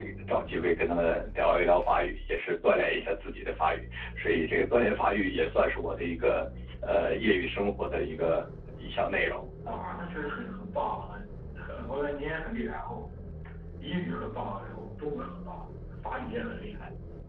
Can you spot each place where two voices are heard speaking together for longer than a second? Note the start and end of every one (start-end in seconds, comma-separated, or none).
none